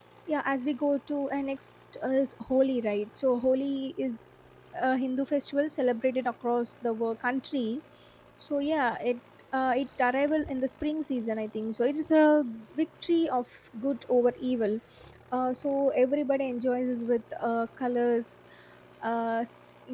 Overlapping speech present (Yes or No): No